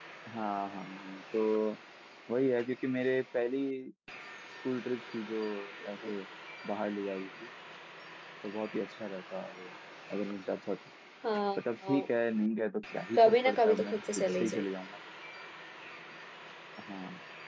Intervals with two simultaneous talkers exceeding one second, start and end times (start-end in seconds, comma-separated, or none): 13.2-14.7